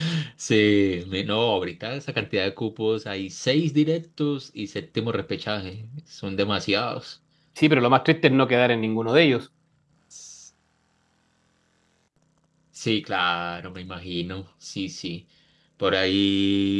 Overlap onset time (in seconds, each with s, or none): none